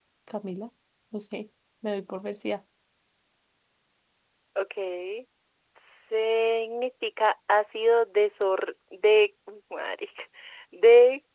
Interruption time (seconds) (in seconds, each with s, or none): none